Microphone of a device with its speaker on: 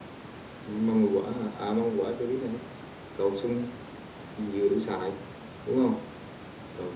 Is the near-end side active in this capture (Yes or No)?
Yes